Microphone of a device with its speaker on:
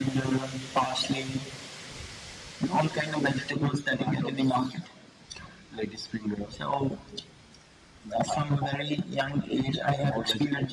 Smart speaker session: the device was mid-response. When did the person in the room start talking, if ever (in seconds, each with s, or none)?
none